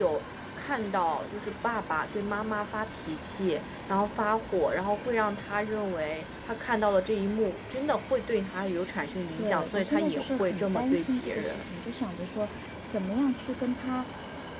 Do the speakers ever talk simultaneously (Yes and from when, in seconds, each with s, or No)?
Yes, from 9.4 s